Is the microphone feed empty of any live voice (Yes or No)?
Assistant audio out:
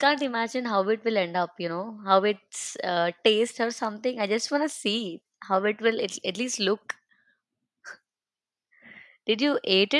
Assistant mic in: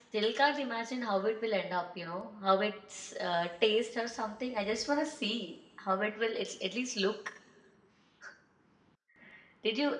Yes